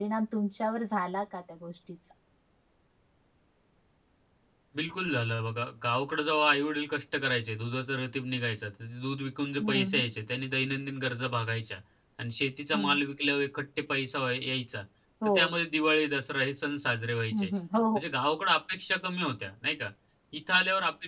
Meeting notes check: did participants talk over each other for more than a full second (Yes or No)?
No